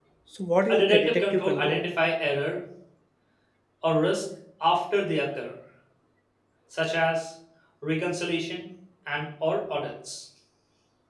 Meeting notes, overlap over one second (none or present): present